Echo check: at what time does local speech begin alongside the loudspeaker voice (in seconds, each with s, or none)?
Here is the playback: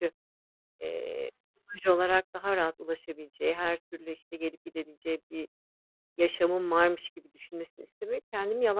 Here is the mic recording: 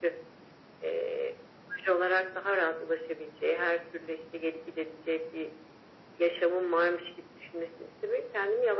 none